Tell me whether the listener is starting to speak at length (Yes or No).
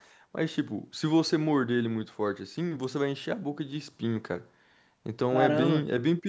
Yes